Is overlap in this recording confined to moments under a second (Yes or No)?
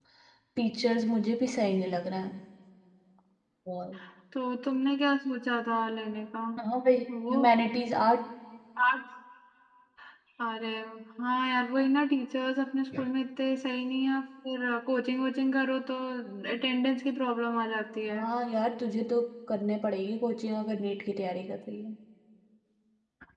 Yes